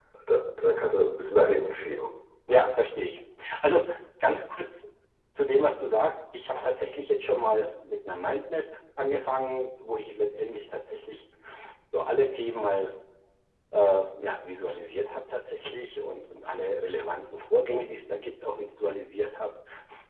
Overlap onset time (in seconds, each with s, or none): none